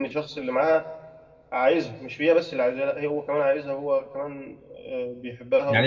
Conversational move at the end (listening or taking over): taking over